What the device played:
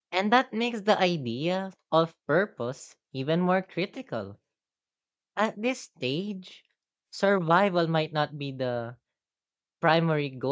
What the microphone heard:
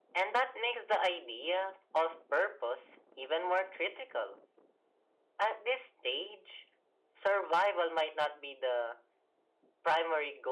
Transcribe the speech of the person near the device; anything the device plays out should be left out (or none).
none